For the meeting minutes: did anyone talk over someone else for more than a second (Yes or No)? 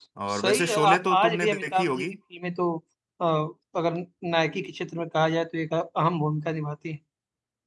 Yes